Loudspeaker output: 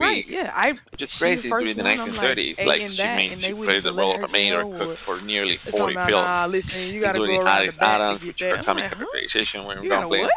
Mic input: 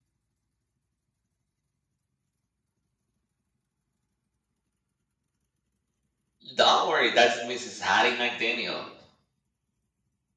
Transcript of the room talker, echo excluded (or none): Don't worry, that's Mrs. Hattie McDaniel.